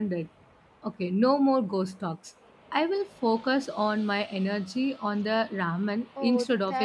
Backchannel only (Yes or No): No